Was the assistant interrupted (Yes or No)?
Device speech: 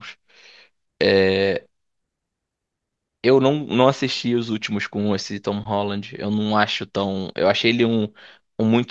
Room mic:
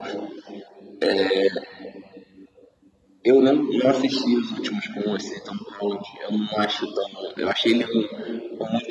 No